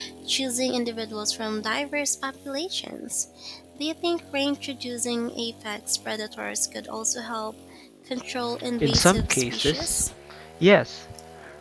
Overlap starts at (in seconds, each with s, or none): 8.8 s